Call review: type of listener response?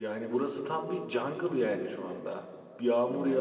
listening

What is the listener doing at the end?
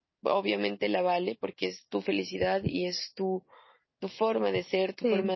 listening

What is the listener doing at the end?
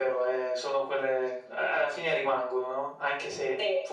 listening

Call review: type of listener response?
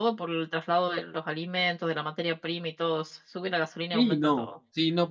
taking over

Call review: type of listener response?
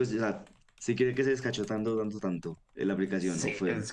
taking over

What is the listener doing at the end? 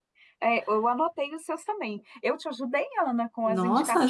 taking over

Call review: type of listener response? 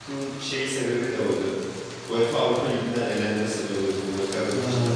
taking over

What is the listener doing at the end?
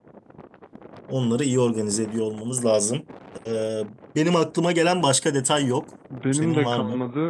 taking over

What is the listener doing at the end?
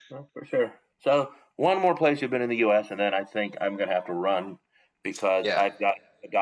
listening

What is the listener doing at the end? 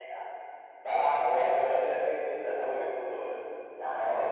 listening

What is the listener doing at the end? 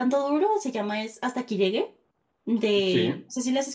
listening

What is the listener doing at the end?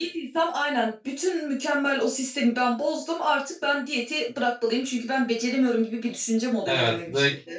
taking over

